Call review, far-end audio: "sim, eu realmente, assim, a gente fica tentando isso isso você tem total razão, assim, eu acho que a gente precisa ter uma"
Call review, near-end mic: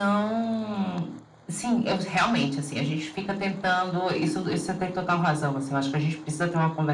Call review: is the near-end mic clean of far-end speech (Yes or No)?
No